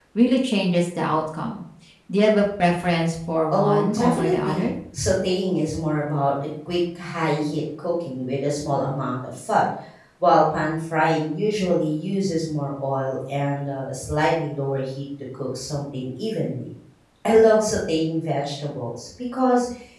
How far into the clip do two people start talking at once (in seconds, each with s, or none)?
3.5 s